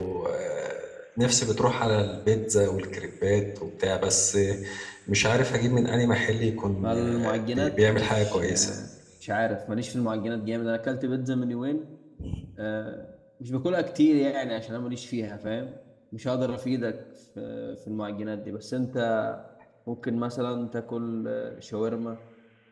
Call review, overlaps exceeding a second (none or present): present